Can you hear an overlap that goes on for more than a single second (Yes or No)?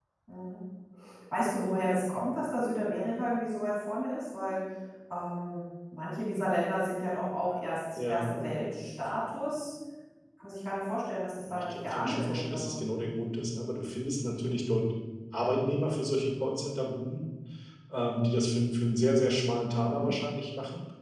Yes